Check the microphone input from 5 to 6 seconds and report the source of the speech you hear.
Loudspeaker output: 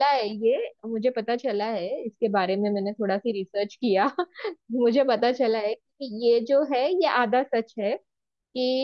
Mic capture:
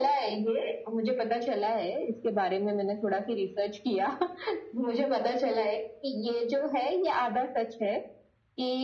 echo only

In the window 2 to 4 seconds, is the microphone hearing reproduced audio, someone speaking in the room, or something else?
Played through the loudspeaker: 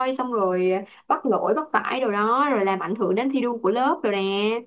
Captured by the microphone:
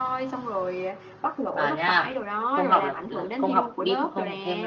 both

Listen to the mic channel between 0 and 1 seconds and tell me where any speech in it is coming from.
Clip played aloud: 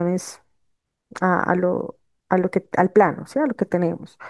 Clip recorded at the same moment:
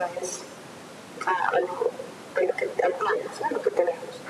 echo only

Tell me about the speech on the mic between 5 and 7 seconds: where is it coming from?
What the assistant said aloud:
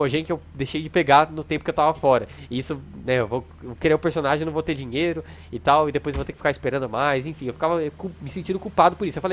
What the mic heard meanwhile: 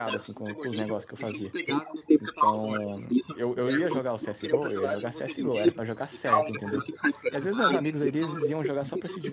both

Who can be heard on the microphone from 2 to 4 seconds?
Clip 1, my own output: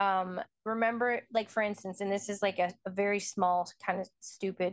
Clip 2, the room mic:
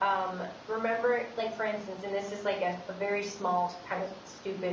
echo only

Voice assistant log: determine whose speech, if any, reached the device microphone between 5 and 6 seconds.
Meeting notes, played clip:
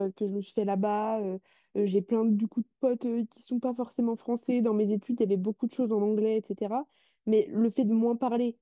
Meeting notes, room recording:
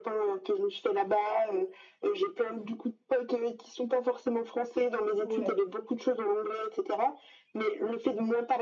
both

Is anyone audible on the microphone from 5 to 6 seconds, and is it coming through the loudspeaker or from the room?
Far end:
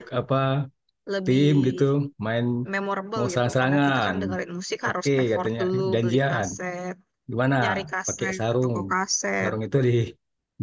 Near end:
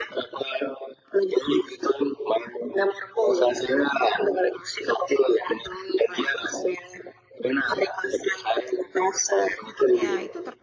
echo only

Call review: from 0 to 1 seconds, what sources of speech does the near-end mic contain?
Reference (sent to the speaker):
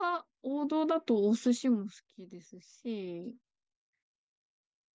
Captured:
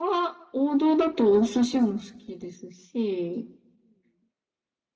echo only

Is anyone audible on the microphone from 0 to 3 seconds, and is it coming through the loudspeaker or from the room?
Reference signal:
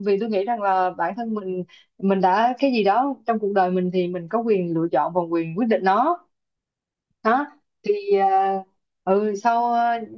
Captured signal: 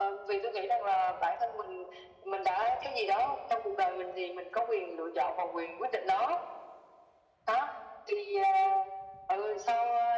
echo only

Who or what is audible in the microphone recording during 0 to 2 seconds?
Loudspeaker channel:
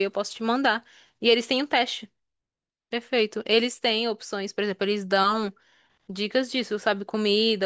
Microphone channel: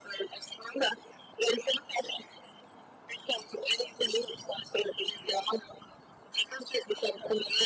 echo only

